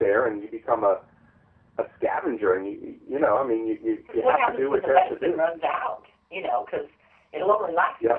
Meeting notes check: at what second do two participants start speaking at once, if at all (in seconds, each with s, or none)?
4.1 s